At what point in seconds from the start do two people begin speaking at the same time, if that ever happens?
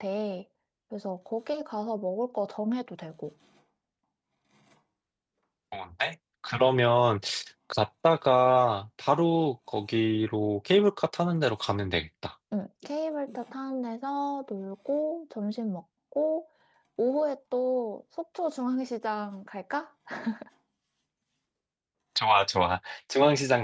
none

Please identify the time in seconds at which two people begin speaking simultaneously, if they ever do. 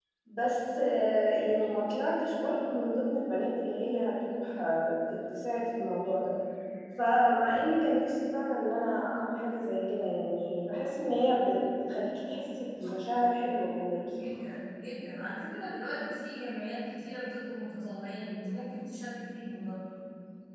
none

